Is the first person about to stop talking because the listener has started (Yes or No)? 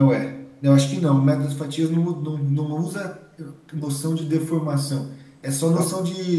No